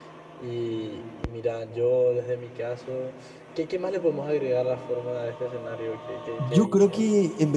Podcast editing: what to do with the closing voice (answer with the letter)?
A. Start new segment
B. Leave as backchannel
A